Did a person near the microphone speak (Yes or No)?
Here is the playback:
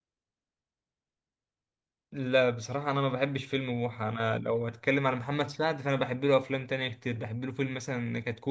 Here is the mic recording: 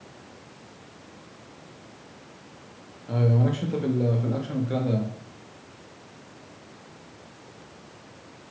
Yes